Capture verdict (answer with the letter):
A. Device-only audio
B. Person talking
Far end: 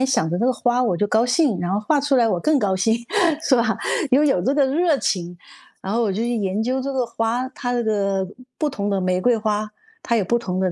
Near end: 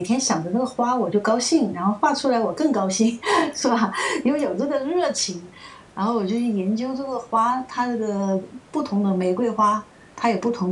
A